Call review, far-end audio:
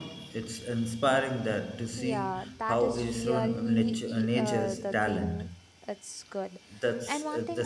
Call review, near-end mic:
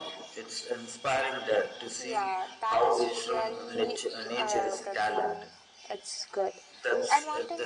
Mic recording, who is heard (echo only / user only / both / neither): echo only